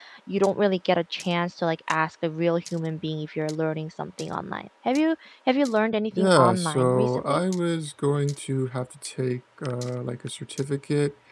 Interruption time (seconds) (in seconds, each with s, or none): 6.2 s